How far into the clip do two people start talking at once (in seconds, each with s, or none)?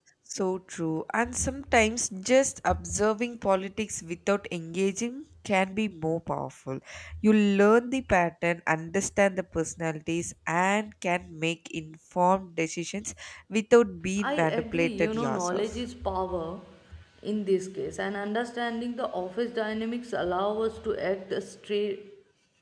14.2 s